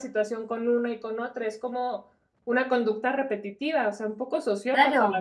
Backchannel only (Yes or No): No